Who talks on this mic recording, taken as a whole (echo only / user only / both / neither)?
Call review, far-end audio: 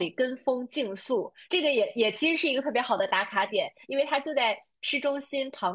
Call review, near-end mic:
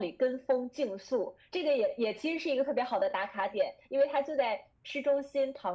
echo only